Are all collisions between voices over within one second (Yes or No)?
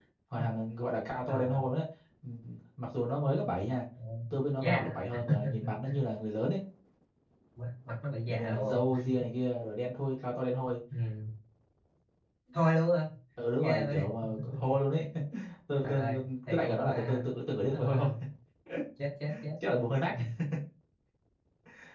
No